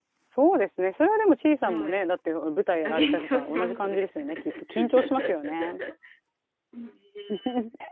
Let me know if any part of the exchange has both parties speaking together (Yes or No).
Yes